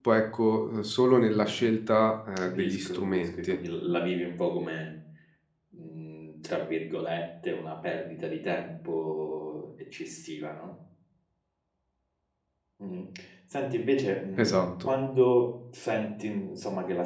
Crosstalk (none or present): present